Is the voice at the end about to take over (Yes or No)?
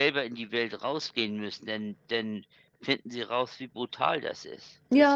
Yes